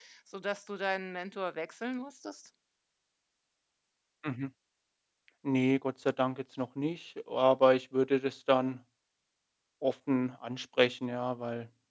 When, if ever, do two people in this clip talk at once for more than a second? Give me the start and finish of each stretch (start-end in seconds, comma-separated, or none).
none